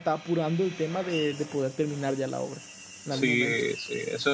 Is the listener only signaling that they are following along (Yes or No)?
No